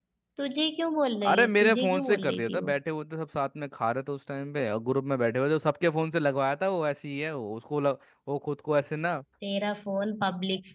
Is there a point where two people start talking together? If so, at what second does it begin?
1.3 s

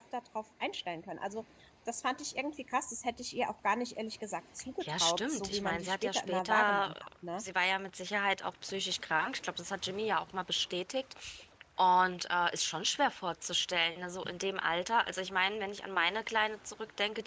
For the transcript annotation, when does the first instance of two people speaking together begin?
4.8 s

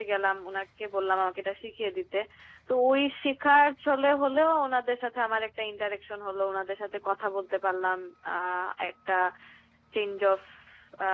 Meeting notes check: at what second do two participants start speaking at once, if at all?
none

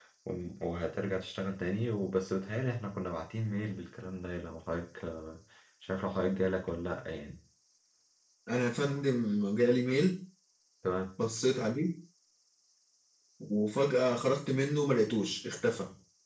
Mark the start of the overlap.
none

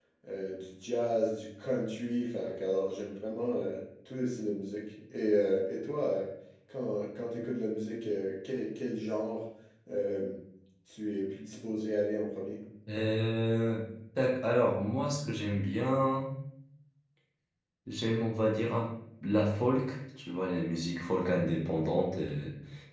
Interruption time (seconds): none

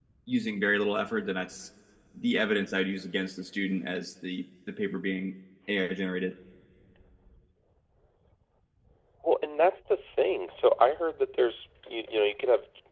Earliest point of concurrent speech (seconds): none

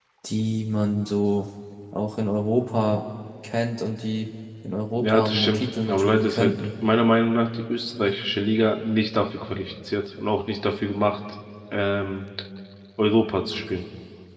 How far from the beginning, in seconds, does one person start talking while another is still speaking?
5.0 s

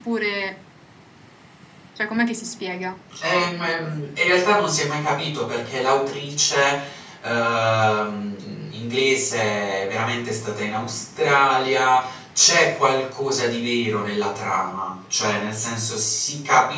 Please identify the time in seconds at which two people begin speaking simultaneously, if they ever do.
none

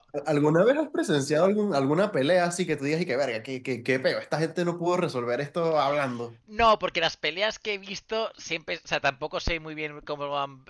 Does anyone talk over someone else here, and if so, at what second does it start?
none

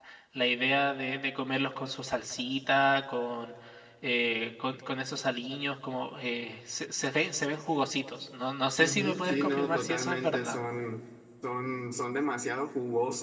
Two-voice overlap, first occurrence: 8.8 s

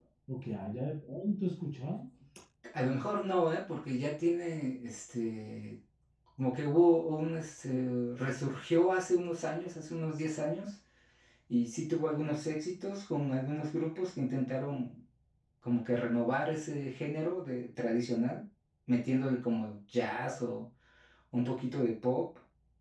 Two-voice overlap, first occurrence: none

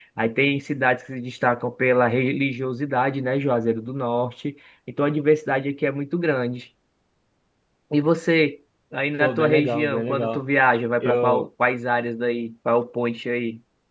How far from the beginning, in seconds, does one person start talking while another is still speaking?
9.2 s

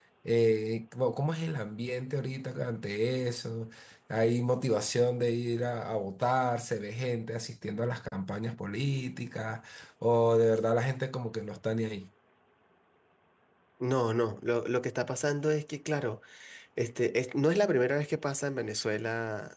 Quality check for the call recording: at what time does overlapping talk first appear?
none

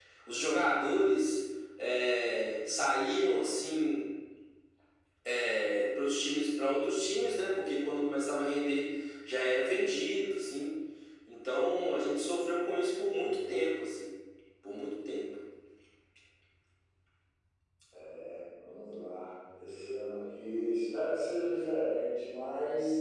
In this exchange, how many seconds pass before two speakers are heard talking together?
none

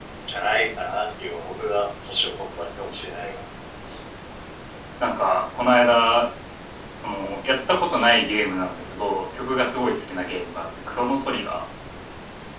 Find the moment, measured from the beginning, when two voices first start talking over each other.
none

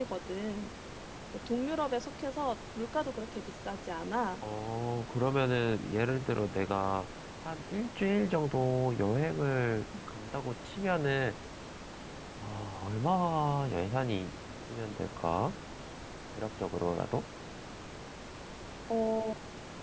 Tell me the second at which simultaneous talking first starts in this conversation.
none

